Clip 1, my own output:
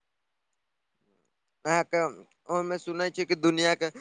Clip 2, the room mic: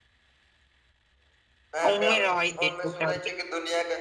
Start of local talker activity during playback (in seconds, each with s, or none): 1.9 s